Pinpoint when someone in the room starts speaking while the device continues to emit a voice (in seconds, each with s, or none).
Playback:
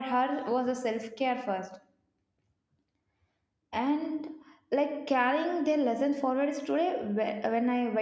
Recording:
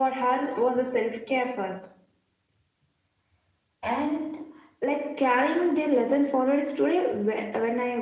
none